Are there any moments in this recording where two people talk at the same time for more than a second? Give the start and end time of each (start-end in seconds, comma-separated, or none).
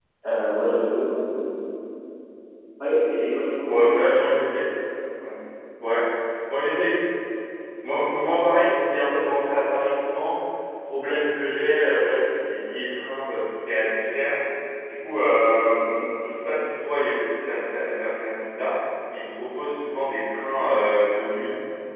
none